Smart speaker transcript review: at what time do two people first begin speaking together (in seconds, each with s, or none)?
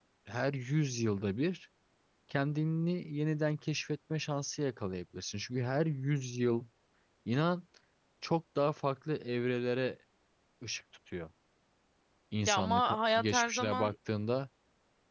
12.5 s